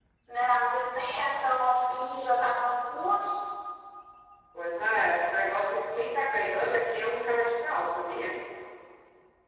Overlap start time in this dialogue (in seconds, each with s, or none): none